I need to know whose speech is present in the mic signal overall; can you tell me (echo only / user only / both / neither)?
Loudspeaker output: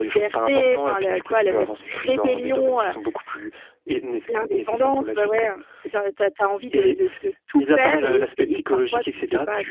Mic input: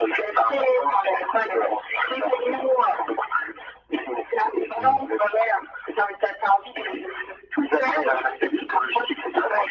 both